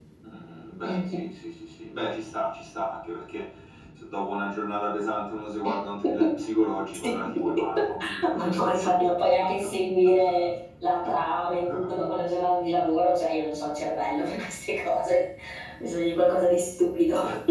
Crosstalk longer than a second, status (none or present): present